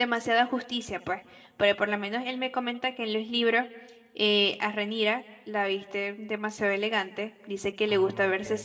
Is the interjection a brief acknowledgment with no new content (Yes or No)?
Yes